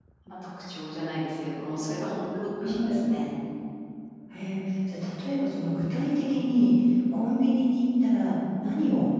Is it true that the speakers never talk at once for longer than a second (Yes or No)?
Yes